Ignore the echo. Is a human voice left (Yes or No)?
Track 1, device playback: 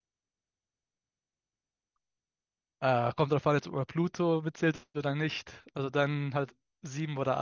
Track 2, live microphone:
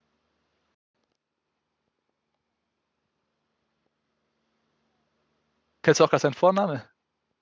Yes